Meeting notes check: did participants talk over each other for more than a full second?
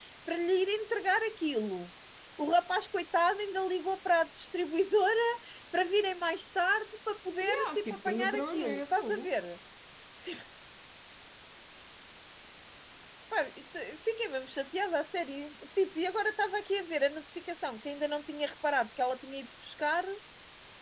Yes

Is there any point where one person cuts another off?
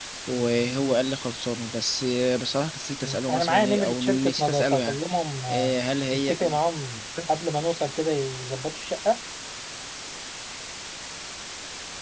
Yes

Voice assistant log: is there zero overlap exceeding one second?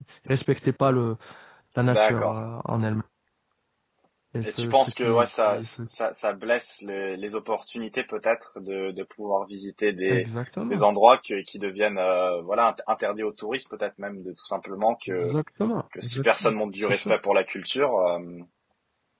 No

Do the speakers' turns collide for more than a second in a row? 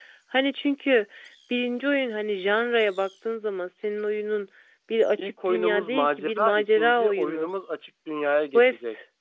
Yes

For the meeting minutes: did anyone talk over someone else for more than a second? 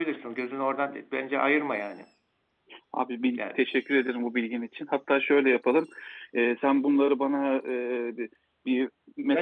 No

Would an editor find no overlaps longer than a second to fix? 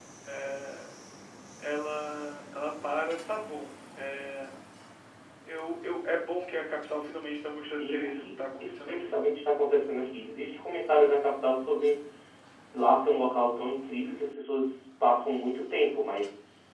No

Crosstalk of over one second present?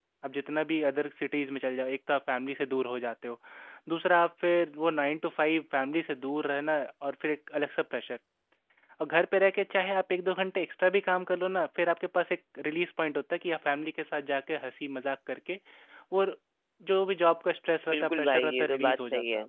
Yes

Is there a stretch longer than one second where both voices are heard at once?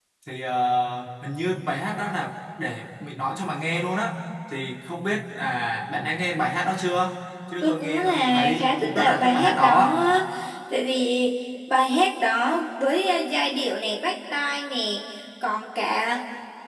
Yes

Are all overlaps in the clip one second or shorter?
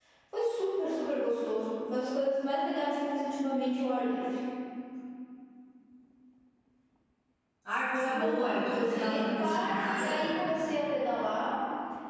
No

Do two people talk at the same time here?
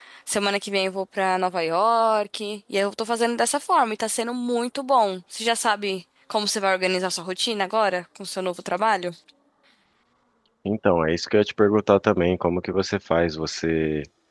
No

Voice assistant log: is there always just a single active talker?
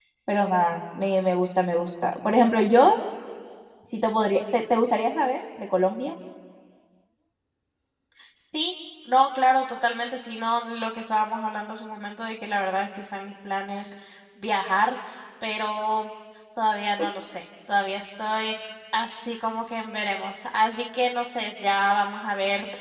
Yes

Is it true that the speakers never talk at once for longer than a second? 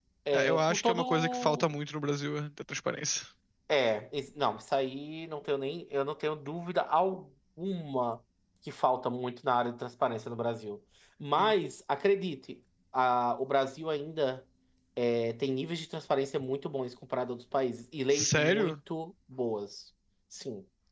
No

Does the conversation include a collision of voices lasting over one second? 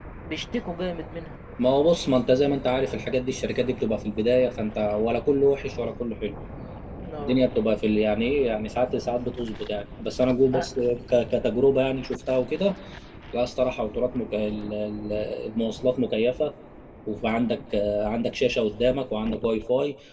No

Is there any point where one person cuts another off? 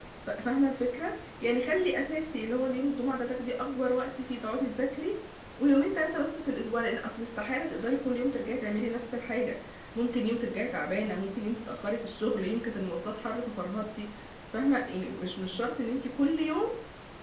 No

